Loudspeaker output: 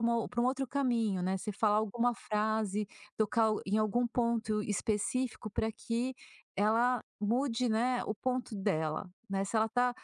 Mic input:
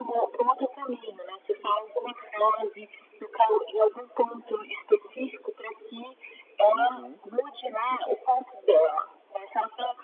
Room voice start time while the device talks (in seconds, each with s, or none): 6.7 s